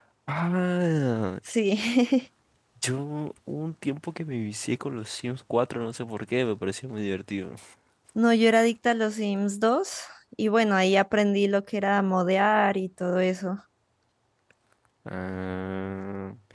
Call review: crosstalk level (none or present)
none